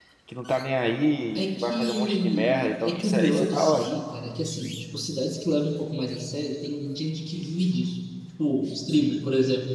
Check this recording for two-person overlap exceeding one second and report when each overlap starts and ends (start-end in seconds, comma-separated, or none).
1.4-3.9